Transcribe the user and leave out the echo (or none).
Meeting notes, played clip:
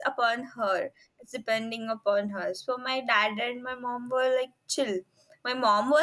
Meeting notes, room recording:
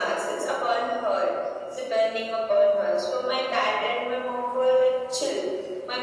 none